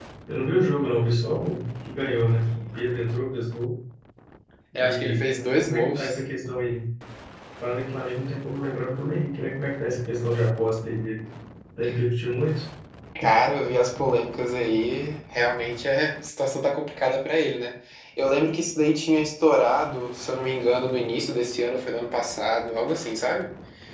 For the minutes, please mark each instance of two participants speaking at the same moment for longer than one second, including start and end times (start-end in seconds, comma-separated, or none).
4.8-6.1